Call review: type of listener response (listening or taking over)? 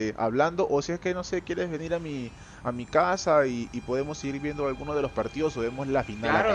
taking over